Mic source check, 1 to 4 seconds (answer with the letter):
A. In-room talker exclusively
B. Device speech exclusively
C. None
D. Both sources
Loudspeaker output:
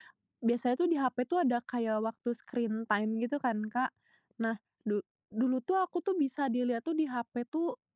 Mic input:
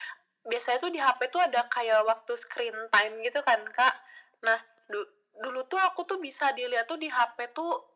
B